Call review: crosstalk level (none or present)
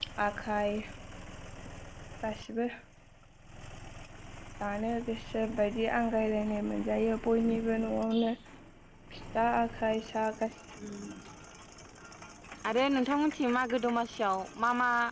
none